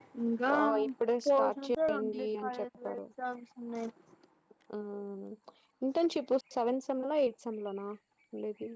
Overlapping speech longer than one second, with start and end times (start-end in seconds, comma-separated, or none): 1.2-3.0